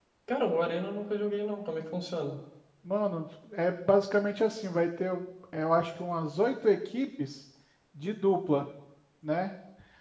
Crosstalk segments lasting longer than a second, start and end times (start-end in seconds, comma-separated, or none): none